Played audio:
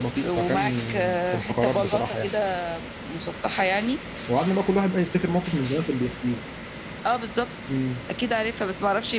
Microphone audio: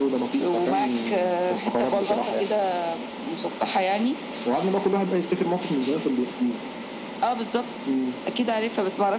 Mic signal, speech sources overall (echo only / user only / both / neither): echo only